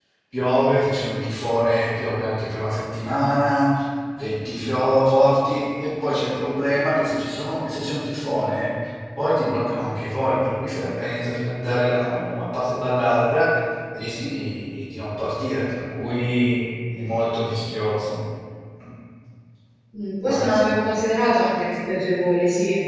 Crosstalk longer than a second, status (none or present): none